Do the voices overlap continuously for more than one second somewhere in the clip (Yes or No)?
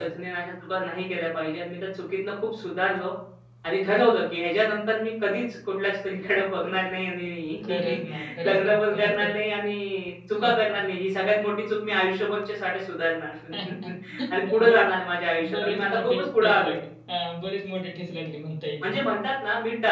Yes